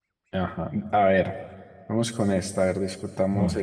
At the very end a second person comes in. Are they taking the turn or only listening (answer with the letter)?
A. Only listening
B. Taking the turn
A